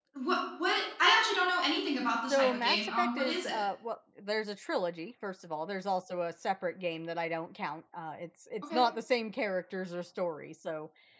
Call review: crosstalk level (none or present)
present